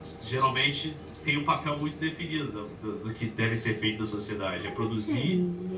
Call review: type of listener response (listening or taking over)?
taking over